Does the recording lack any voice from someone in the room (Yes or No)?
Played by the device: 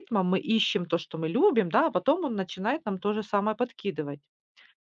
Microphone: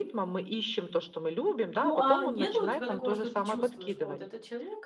No